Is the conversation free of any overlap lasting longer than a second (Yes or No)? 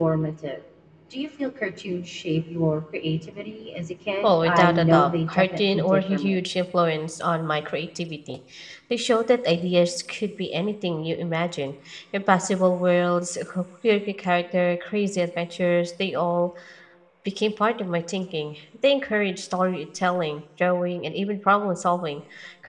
No